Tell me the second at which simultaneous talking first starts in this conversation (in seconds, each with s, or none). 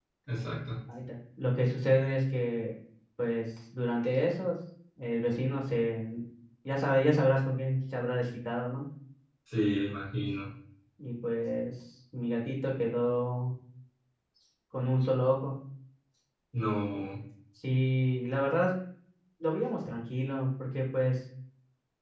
none